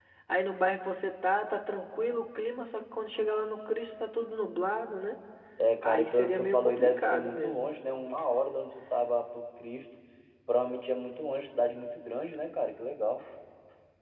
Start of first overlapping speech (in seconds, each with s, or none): 5.8 s